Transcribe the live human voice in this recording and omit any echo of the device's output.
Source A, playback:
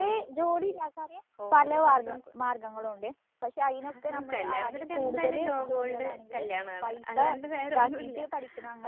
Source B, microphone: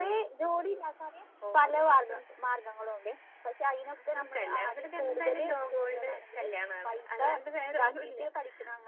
none

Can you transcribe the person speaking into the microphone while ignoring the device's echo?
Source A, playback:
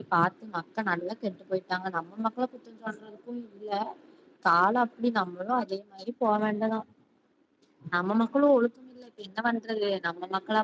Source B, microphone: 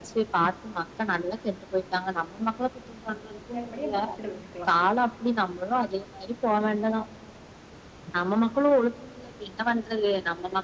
வேனுமனியு எ பக்கத்துல வெச்சுக்லா

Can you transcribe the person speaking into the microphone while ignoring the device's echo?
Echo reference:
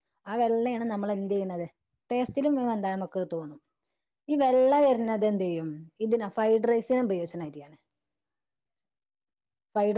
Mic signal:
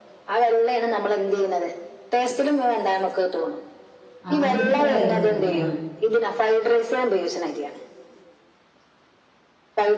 ആഹ് മന്തിക്ക് ഇത്ര ടൈം വര്ന്നില്ല

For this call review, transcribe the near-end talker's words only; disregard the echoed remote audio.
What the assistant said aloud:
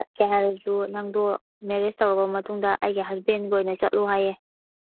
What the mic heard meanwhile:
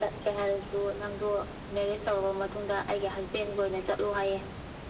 none

